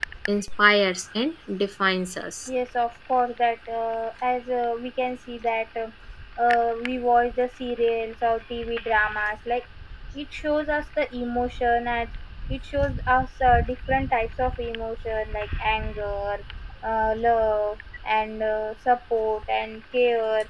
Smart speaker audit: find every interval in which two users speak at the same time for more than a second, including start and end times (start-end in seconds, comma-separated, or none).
none